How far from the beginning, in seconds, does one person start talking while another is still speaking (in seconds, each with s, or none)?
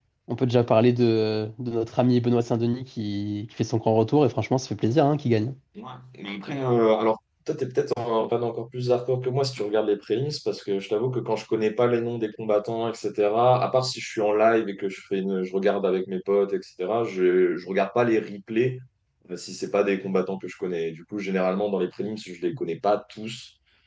none